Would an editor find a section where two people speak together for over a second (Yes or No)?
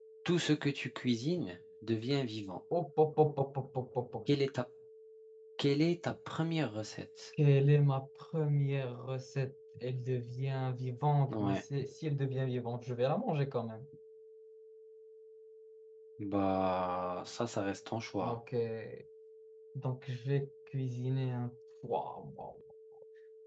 No